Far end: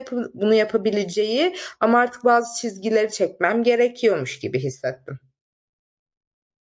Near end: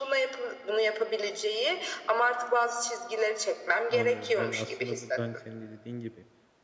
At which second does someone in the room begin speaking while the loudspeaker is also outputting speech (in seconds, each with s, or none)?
3.9 s